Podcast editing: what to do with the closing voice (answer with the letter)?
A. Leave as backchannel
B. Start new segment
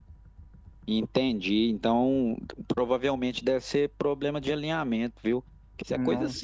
A